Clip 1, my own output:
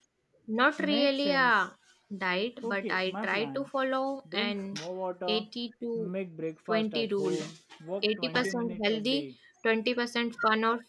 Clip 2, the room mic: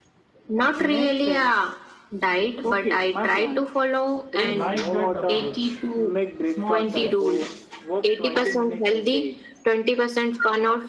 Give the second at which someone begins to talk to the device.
4.5 s

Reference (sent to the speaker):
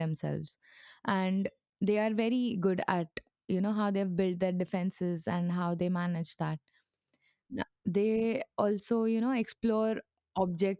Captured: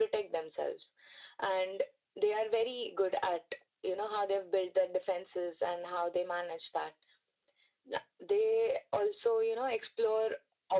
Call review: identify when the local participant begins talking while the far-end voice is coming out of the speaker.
none

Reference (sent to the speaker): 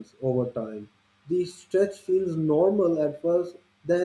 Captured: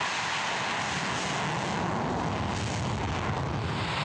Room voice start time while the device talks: none

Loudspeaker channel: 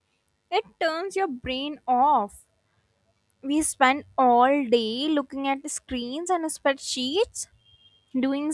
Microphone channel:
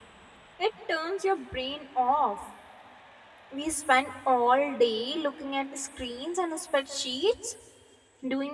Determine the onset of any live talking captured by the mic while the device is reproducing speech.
none

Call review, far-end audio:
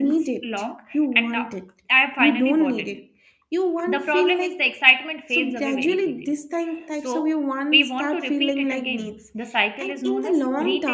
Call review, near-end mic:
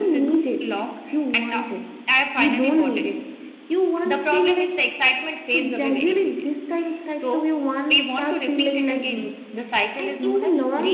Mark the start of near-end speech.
none

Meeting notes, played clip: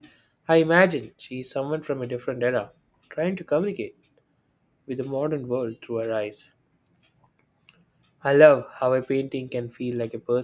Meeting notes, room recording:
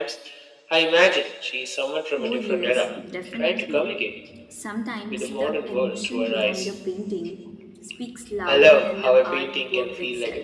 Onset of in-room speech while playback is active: 2.2 s

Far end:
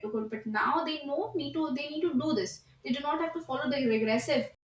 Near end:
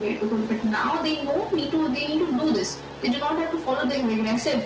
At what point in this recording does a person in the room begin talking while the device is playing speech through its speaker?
none

